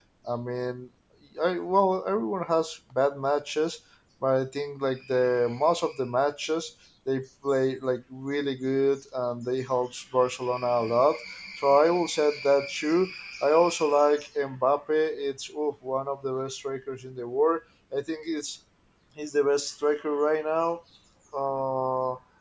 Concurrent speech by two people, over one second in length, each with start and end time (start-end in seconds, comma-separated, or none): none